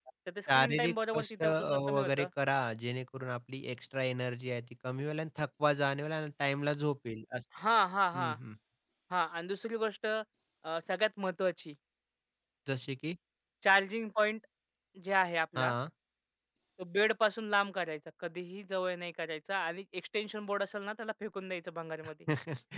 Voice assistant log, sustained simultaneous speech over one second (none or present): present